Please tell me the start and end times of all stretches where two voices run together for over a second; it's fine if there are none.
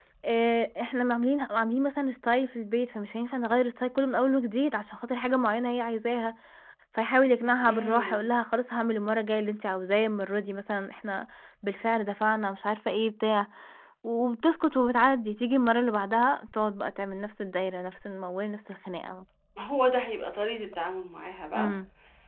none

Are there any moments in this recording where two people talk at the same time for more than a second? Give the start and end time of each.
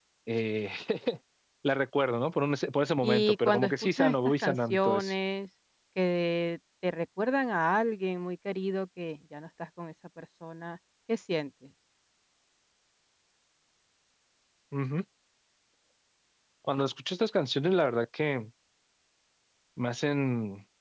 3.0-5.1

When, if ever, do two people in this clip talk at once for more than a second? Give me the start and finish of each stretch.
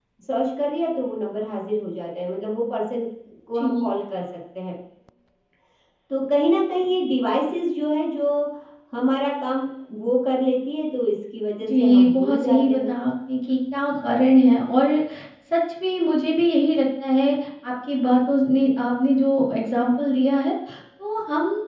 11.6-12.9

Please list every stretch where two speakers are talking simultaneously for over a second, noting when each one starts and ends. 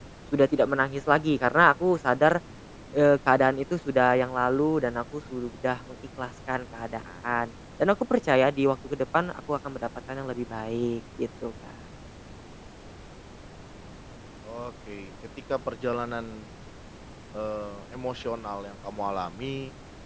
none

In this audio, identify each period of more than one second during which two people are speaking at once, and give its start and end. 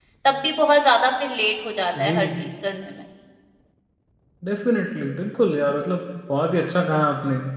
none

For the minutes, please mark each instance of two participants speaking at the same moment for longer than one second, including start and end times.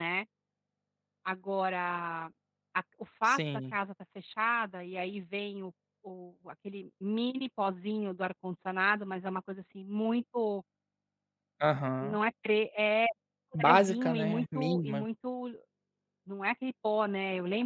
13.6-15.0

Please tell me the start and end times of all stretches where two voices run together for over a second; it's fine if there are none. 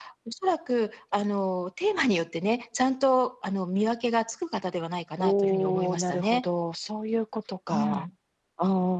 5.2-6.4

